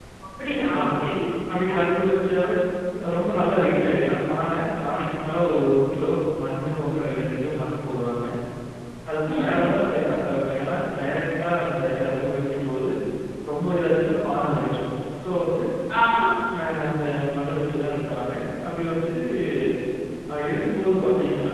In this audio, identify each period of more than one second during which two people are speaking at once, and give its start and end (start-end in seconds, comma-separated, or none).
none